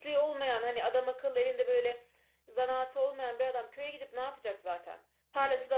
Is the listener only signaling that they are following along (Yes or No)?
Yes